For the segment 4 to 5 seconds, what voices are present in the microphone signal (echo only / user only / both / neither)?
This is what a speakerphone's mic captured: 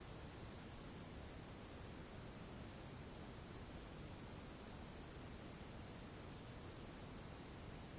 neither